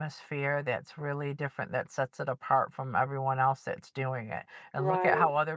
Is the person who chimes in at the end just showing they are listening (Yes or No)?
Yes